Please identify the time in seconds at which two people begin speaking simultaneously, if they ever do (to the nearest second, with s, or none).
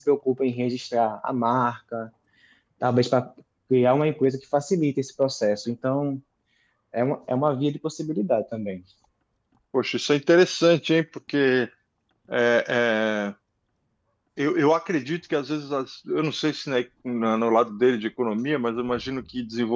none